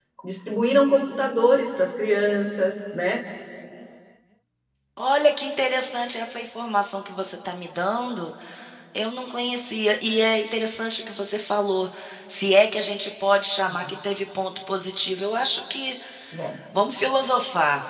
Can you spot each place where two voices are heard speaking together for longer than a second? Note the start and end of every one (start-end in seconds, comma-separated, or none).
none